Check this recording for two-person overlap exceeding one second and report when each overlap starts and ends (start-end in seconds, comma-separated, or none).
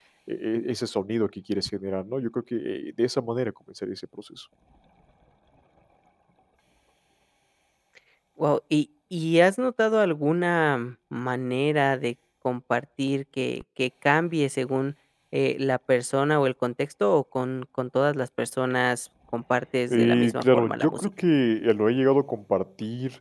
19.9-21.1